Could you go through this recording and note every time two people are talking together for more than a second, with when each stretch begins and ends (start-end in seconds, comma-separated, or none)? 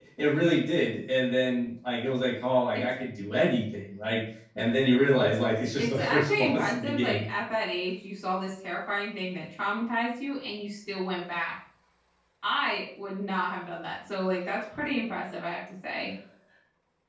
5.8-7.2